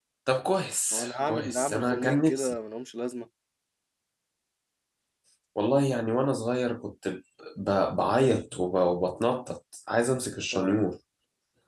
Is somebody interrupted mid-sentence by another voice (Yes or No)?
Yes